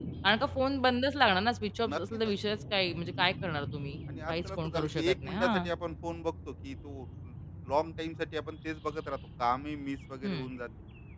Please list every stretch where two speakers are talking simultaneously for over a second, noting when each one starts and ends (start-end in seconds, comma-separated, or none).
4.3-5.7